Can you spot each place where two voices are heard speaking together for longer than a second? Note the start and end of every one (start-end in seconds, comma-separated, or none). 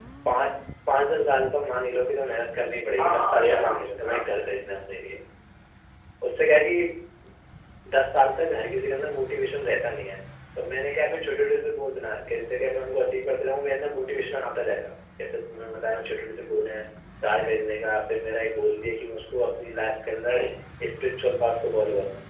3.0-4.2